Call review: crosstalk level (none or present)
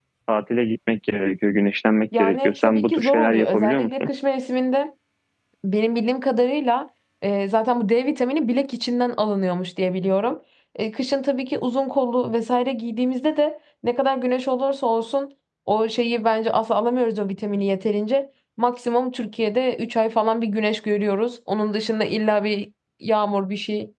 present